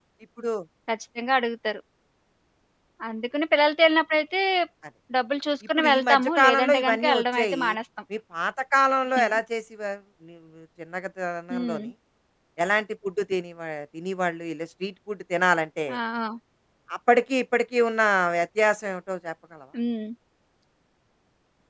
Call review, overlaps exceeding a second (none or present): present